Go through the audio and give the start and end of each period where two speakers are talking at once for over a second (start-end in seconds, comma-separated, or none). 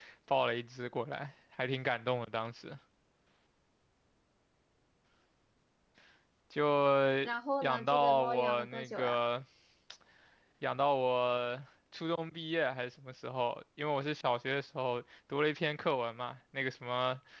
7.6-9.2